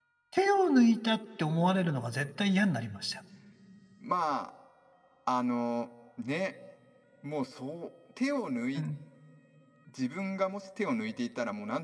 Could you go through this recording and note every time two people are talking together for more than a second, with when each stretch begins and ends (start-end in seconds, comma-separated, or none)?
none